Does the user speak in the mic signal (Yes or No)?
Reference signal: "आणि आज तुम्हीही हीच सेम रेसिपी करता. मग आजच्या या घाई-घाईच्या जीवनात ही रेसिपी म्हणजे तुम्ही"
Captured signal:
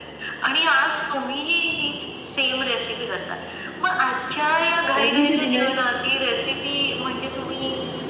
Yes